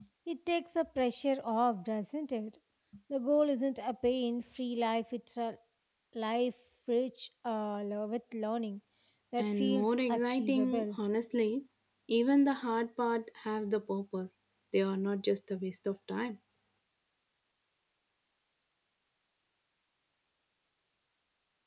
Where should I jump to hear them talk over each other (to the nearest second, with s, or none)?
9 s